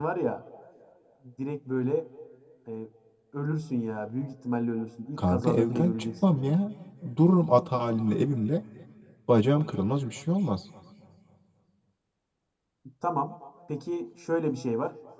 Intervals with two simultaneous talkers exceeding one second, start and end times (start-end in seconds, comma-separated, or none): 5.2-6.5